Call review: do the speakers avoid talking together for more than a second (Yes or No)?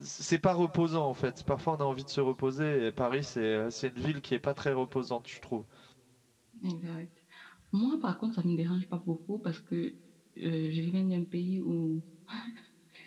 Yes